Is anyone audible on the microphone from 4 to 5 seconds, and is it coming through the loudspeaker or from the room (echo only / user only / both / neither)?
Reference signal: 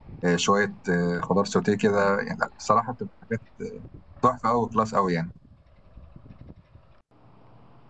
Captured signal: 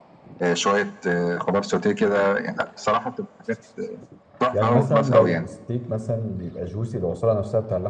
both